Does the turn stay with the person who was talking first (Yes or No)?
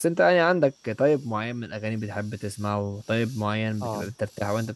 Yes